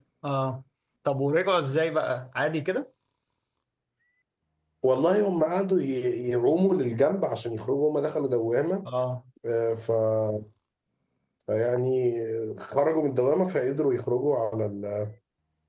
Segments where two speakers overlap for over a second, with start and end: none

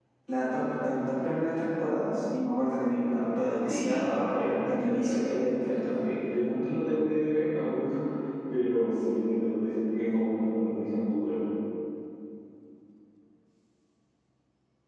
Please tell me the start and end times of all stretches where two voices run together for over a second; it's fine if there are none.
3.6-5.8

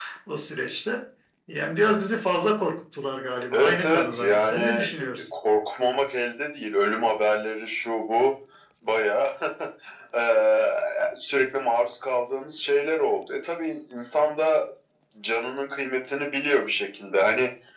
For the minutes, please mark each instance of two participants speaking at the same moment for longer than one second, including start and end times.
3.5-4.9

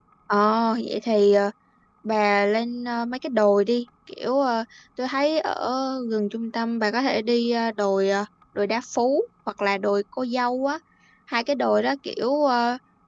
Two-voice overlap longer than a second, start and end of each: none

